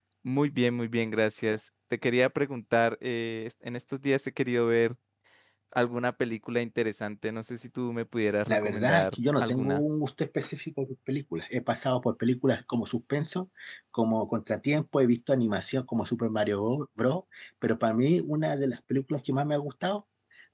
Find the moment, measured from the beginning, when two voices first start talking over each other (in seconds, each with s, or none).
8.5 s